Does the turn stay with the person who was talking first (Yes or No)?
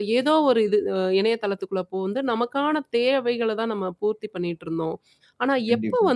Yes